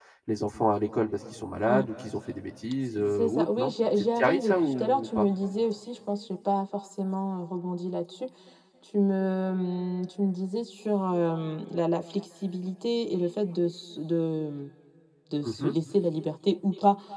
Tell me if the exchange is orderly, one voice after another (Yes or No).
No